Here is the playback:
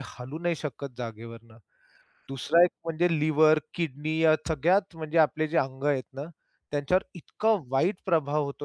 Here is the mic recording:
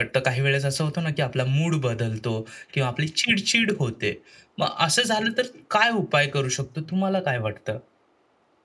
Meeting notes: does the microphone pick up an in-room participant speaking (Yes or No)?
Yes